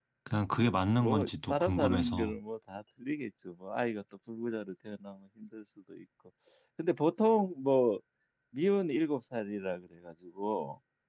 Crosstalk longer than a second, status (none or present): present